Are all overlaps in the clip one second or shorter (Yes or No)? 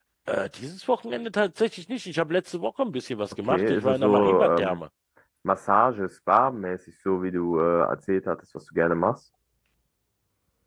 No